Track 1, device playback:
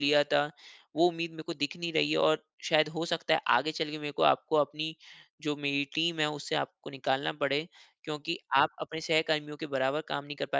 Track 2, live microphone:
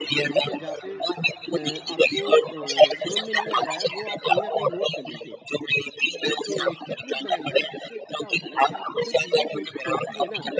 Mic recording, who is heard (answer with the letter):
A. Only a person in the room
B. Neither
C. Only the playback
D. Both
D